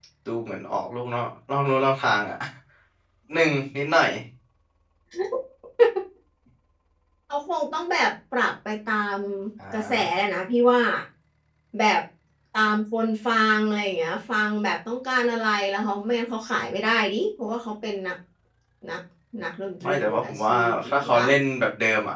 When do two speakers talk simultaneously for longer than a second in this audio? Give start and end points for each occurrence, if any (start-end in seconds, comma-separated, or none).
19.8-21.3